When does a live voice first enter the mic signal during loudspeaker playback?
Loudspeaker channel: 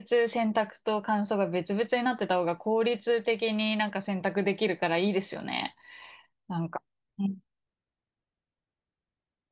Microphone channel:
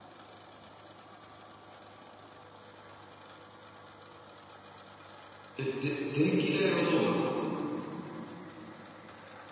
5.6 s

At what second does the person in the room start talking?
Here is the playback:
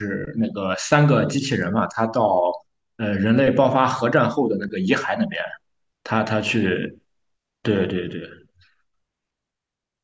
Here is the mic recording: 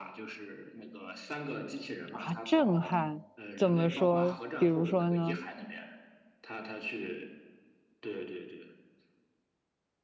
2.1 s

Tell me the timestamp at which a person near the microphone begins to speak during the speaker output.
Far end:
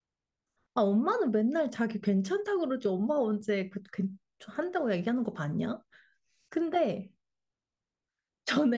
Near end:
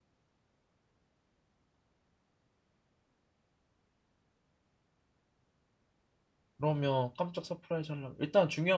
6.6 s

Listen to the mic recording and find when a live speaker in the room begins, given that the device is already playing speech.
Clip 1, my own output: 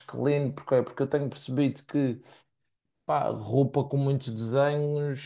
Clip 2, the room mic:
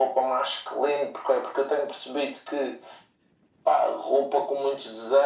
none

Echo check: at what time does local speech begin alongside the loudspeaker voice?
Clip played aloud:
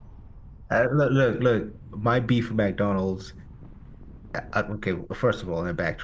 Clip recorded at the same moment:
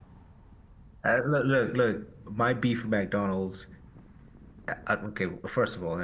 none

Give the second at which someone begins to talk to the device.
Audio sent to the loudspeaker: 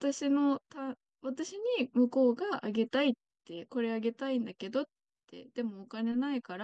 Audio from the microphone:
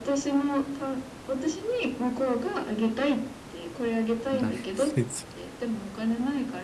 4.3 s

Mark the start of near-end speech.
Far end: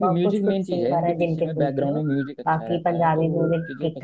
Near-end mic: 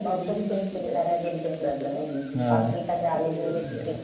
2.4 s

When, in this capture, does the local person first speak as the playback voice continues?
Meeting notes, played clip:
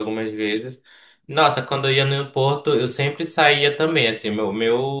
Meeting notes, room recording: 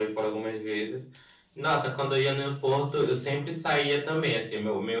none

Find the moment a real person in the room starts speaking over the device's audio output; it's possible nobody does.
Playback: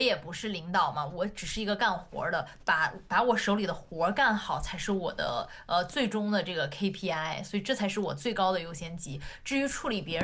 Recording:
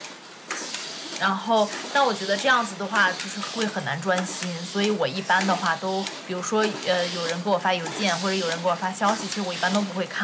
1.1 s

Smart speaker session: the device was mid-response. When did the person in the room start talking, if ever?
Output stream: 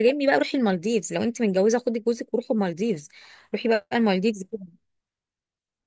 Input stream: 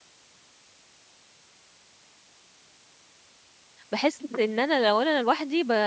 3.9 s

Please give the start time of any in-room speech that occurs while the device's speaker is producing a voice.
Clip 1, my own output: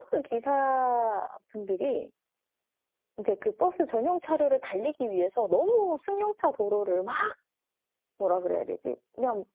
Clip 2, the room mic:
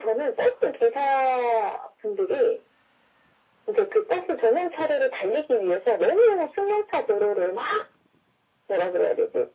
none

